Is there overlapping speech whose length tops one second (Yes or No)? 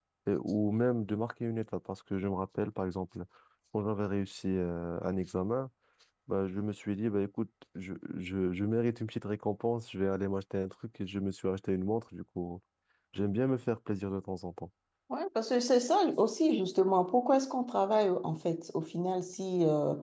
No